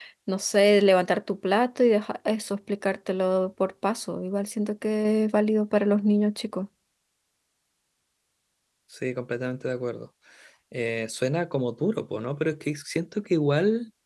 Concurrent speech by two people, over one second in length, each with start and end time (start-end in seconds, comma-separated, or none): none